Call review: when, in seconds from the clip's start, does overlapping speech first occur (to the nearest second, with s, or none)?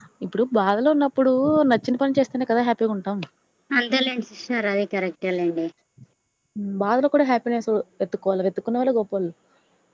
none